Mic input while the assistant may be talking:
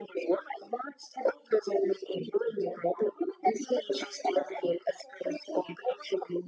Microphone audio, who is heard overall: echo only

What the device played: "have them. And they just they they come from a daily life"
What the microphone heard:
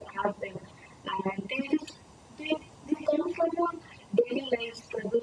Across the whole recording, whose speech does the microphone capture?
echo only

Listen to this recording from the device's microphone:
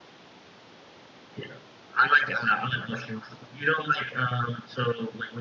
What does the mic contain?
echo only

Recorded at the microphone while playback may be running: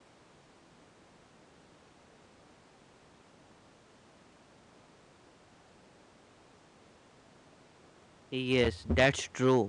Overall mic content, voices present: user only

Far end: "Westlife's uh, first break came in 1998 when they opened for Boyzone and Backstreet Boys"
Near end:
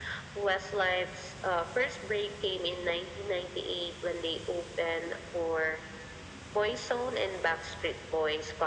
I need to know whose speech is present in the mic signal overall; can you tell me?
echo only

